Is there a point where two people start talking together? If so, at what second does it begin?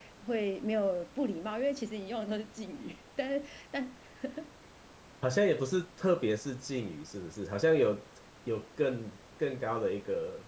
none

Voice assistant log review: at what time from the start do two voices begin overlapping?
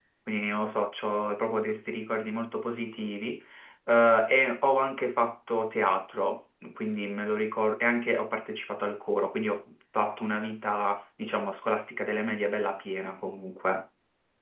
none

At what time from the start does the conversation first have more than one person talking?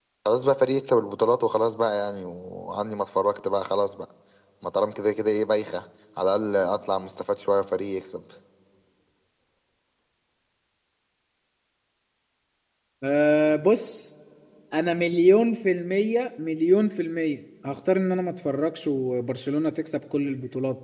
none

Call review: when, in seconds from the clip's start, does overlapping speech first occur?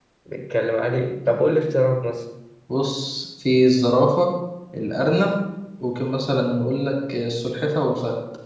none

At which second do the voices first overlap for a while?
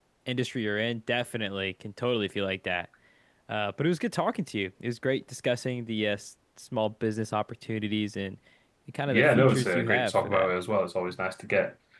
9 s

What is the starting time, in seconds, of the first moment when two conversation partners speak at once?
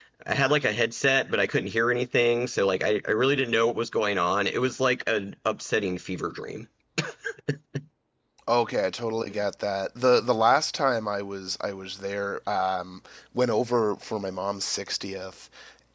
none

